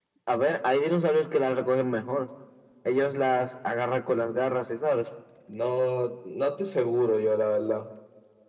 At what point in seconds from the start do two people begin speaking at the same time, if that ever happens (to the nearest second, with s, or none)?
none